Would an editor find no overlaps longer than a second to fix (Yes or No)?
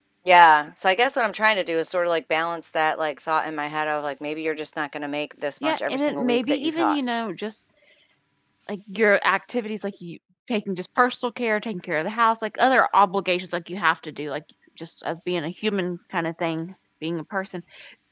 No